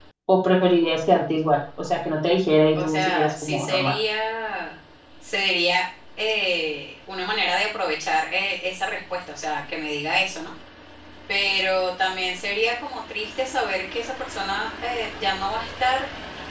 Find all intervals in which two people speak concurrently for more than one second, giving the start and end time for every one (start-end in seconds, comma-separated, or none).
2.7-3.9